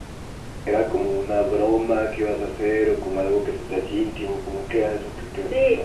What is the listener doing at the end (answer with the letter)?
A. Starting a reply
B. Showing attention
A